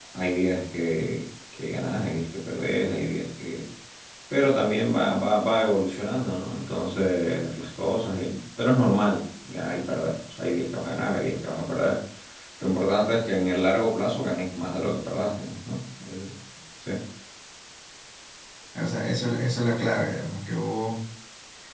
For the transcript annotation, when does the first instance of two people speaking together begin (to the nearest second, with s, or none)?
none